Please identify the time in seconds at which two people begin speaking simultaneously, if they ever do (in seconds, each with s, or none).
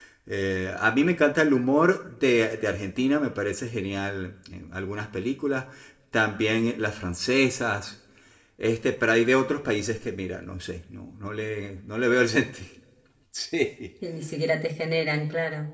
none